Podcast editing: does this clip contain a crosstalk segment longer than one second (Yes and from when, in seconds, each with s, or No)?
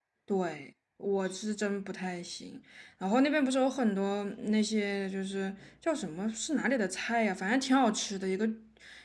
No